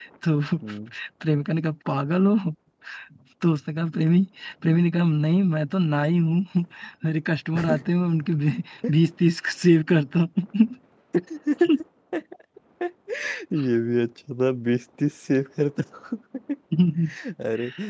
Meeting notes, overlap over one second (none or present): none